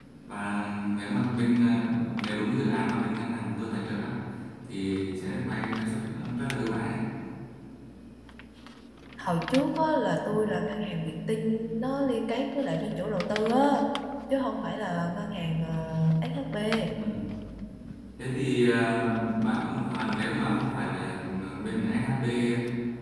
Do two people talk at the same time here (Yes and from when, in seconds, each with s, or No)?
No